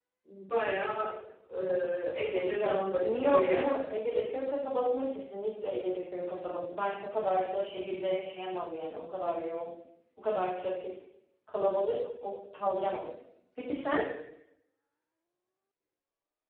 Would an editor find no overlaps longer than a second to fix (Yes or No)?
No